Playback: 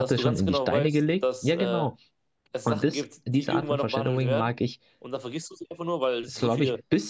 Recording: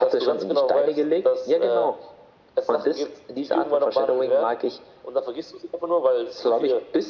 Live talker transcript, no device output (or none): none